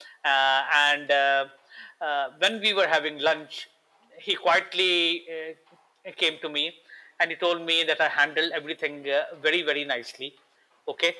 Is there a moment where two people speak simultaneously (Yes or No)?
No